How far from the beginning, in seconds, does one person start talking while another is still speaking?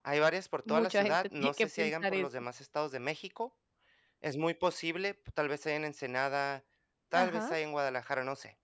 1 s

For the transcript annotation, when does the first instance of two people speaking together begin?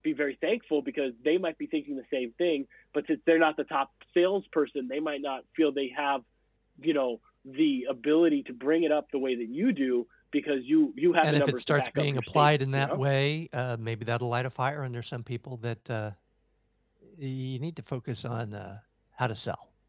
11 s

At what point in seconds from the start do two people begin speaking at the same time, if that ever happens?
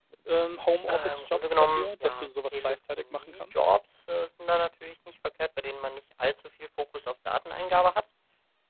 1 s

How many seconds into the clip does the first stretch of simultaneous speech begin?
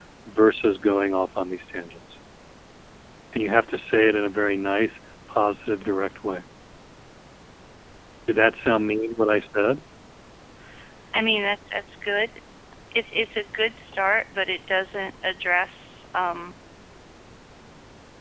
none

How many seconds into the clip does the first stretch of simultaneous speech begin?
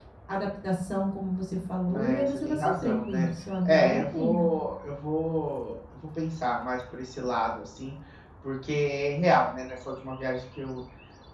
2 s

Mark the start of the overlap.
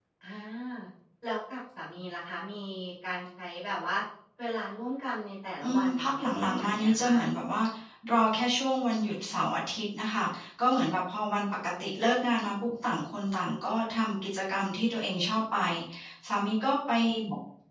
6 s

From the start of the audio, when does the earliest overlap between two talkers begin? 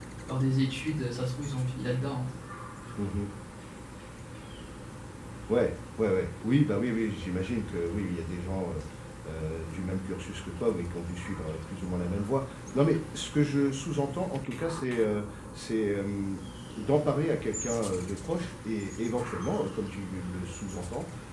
none

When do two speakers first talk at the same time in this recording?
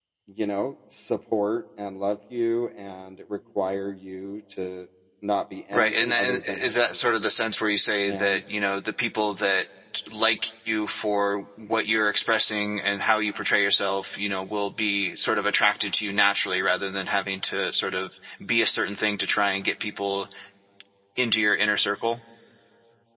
6 s

